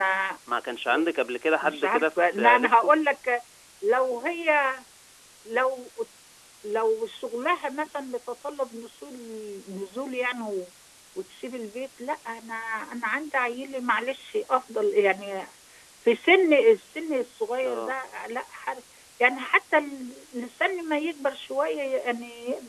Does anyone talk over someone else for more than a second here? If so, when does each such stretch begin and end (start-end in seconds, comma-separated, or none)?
1.6-2.9